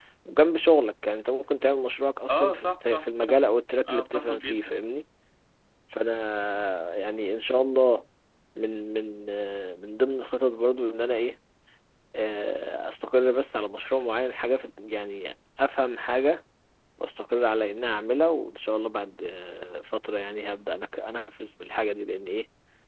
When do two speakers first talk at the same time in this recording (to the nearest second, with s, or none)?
2 s